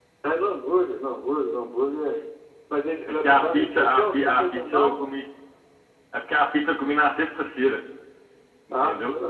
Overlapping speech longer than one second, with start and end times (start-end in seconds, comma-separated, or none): 3.2-5.1